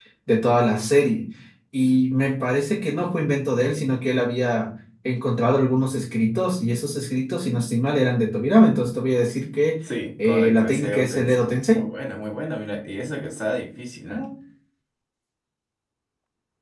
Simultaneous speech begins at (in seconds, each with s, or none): 10.2 s